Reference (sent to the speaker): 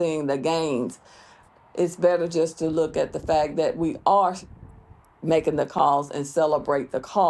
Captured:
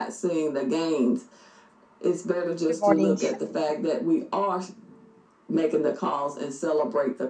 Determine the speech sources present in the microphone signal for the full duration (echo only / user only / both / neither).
both